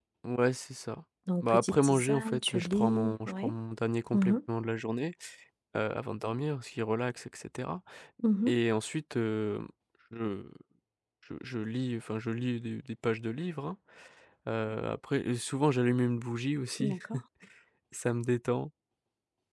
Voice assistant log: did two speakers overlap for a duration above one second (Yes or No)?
Yes